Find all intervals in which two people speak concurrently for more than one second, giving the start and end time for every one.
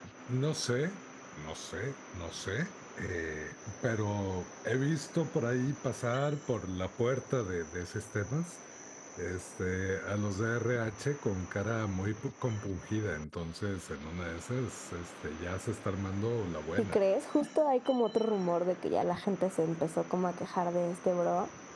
none

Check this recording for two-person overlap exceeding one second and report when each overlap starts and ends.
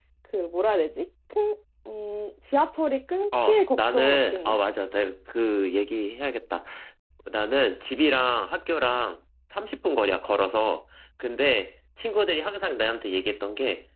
3.3-4.6

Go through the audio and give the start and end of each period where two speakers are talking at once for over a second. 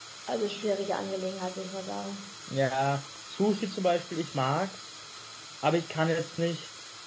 none

